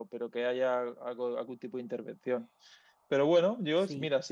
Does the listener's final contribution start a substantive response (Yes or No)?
No